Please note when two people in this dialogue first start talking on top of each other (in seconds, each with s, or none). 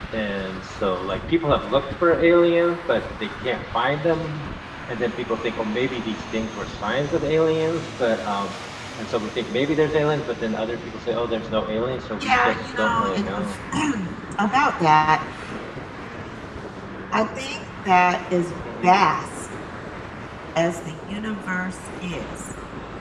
12.2 s